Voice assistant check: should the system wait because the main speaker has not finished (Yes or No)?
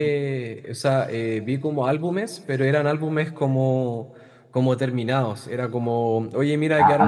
Yes